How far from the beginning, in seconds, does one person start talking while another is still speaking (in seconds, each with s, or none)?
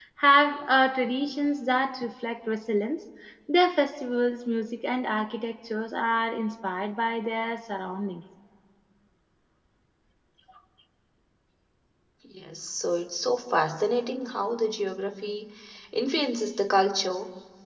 none